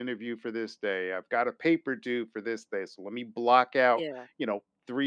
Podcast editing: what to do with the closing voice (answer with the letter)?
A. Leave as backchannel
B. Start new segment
A